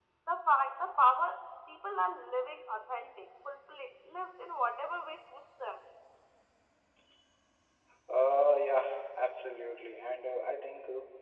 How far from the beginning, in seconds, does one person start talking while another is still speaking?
none

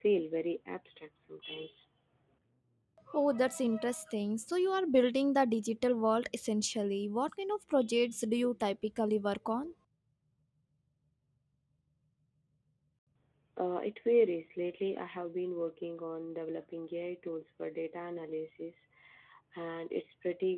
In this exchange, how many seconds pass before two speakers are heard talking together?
none

